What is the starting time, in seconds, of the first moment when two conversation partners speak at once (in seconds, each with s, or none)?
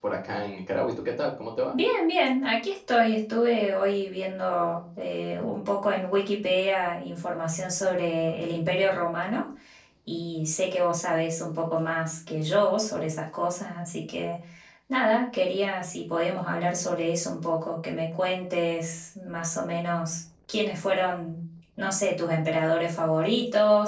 none